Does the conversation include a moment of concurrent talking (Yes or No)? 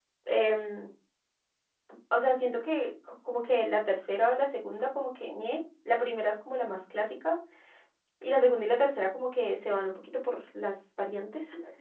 No